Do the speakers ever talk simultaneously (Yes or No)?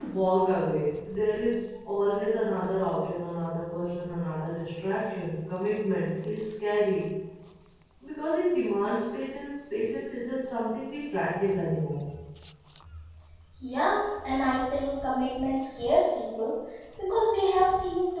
No